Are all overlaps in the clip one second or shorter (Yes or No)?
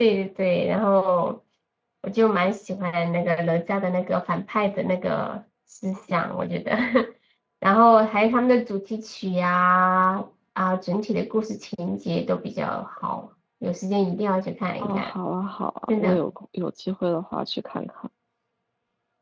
Yes